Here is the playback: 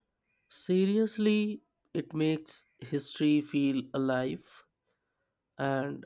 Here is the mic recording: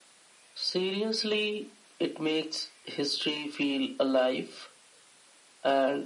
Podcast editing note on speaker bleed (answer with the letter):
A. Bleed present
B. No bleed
A